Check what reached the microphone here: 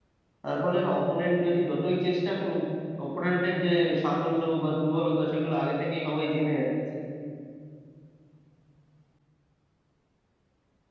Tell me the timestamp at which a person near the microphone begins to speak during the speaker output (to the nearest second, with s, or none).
0 s